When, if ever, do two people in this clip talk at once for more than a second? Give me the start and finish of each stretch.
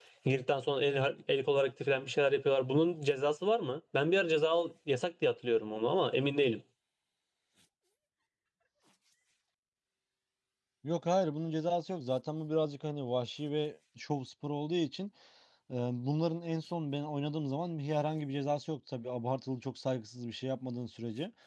none

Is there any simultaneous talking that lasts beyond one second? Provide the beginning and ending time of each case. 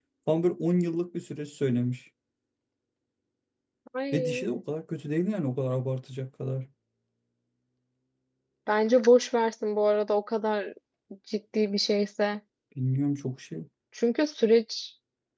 none

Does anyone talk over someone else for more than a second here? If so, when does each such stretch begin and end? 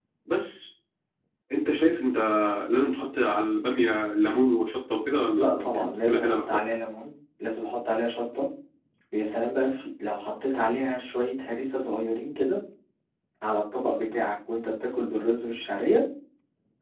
5.3-6.7

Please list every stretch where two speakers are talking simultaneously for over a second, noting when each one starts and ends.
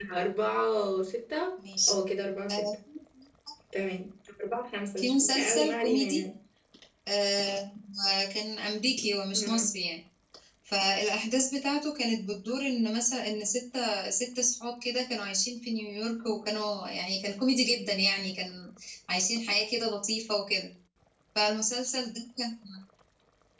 5.0-6.2

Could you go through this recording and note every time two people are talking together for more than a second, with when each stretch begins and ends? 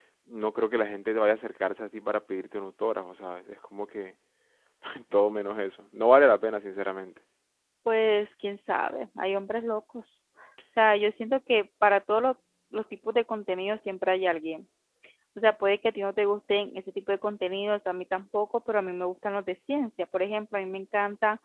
none

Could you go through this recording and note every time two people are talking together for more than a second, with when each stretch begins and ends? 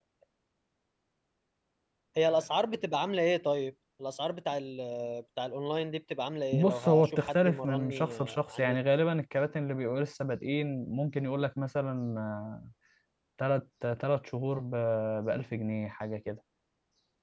6.5-8.8

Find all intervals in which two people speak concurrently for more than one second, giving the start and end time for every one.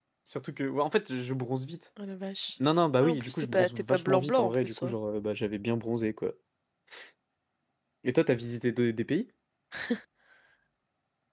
3.0-4.9

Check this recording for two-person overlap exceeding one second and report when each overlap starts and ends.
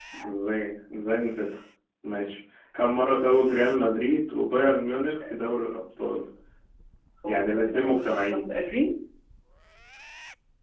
7.2-8.5

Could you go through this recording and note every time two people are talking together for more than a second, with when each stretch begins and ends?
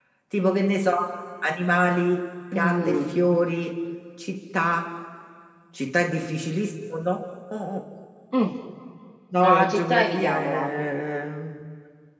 9.4-10.7

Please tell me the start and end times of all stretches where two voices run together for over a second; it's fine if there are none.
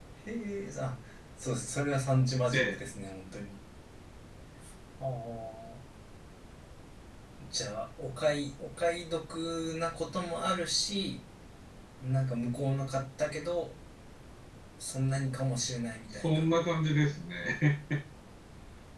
none

